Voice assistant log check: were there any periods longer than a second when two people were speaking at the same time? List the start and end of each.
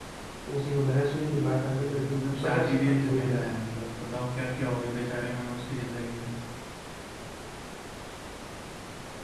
1.7-3.5

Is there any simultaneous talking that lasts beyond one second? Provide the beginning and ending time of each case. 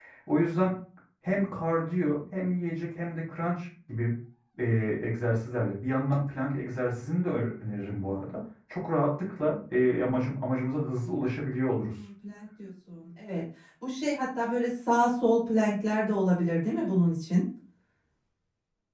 none

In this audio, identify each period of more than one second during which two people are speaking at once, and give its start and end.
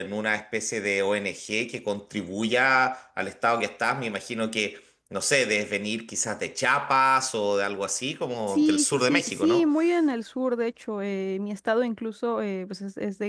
8.5-9.7

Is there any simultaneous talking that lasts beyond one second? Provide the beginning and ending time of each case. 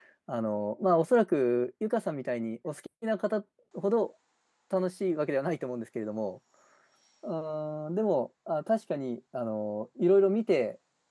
none

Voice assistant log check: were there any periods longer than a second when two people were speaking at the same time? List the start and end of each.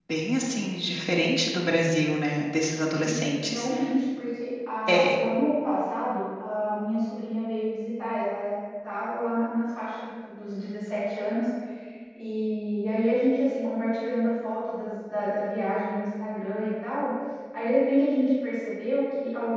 none

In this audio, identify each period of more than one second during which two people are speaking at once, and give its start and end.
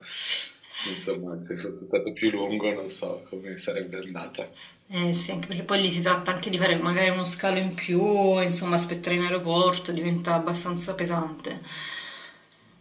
none

